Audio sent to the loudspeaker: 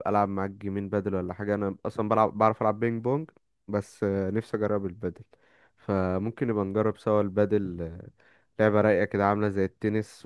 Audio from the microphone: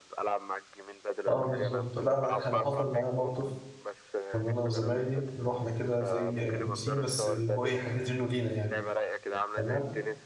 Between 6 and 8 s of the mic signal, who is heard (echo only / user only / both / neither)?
both